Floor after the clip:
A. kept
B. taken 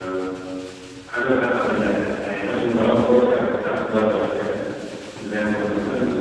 B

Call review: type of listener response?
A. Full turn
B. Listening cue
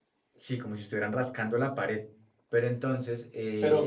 A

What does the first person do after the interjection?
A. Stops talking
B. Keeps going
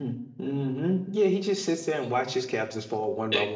B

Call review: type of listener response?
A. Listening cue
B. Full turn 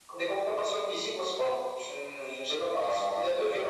B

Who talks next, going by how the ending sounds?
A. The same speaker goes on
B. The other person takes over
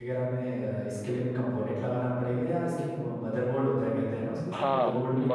B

